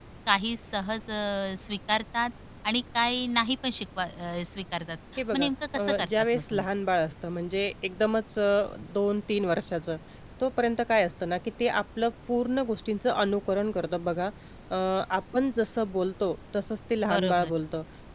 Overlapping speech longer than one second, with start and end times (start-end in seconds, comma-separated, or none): 5.3-6.7